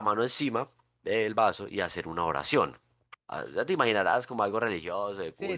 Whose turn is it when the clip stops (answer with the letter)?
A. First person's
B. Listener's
B